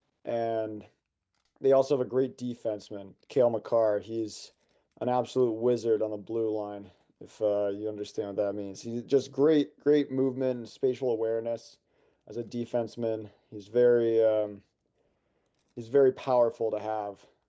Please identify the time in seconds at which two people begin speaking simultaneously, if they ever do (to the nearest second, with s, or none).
none